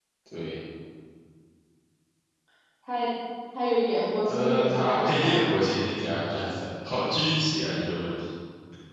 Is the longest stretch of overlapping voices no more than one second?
No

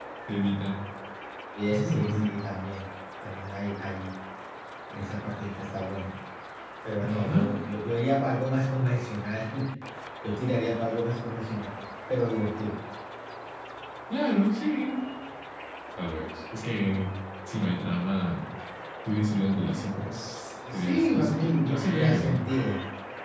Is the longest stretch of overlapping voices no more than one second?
No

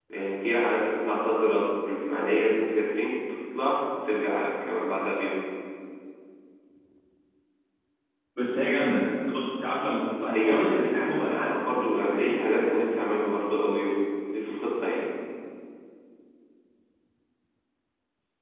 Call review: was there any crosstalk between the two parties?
Yes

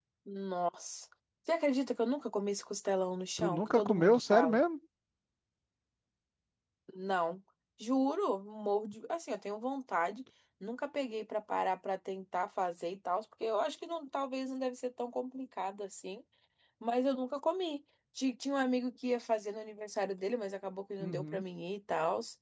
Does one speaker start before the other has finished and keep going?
Yes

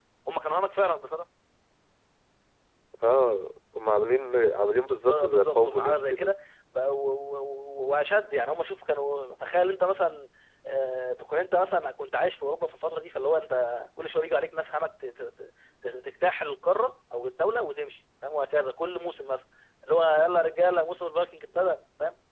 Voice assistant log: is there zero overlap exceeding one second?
No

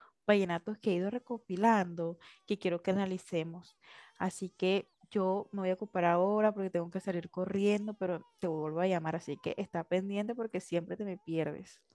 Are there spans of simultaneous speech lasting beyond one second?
No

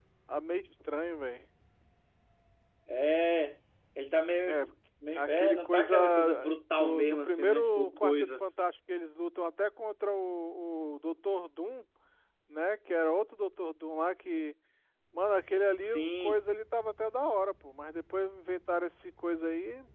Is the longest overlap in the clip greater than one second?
Yes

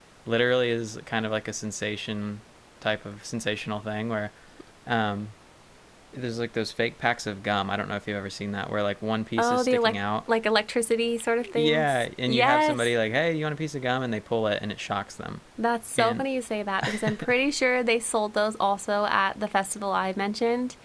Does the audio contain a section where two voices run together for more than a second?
Yes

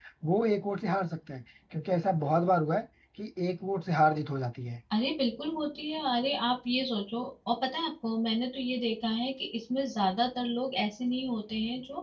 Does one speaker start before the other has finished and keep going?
No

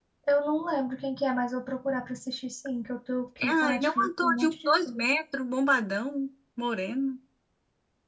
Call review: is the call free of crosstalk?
No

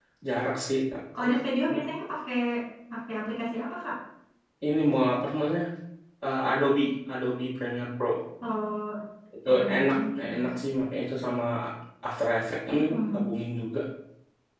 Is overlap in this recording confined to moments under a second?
Yes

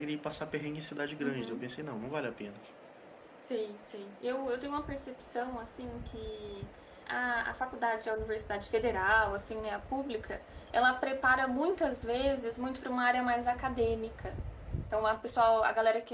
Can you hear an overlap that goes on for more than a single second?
No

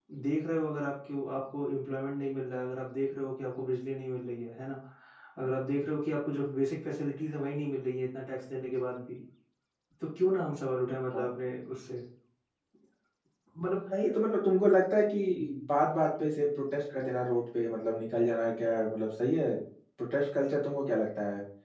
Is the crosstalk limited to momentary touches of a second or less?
Yes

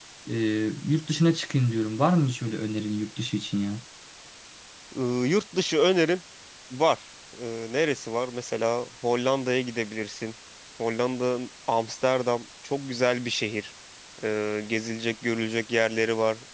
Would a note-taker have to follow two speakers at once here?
No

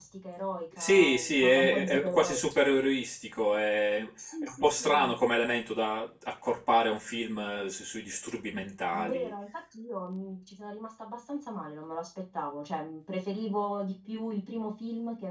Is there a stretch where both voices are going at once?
Yes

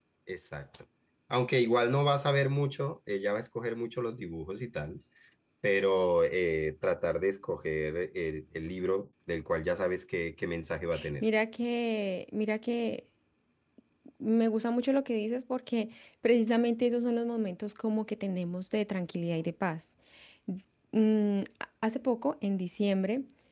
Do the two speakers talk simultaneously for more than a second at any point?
No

